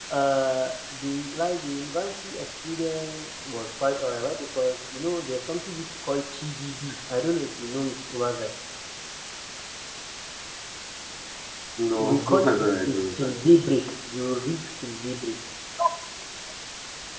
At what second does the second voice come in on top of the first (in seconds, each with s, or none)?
12.0 s